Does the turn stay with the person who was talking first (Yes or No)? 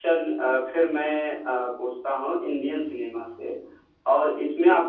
Yes